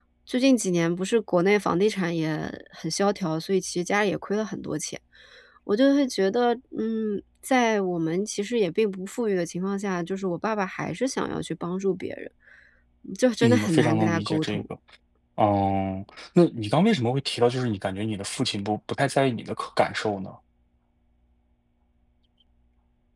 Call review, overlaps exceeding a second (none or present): present